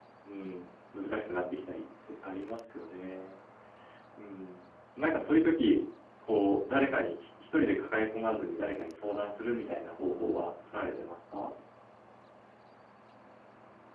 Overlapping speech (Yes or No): No